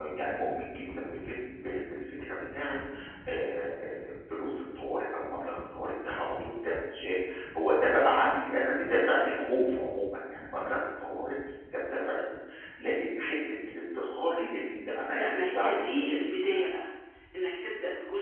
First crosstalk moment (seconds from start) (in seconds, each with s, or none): 15.1 s